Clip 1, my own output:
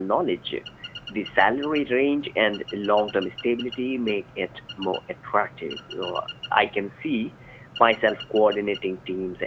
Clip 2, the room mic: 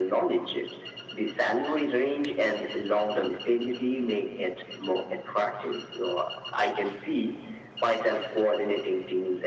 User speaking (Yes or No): No